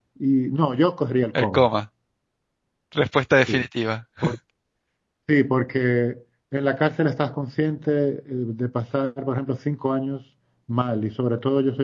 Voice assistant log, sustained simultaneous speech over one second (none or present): none